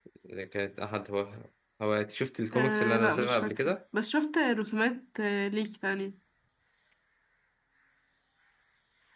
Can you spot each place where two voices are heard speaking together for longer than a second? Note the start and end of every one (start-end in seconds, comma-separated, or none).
2.5-3.8